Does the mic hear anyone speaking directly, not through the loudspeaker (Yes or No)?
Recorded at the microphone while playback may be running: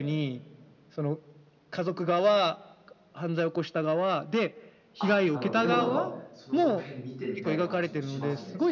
Yes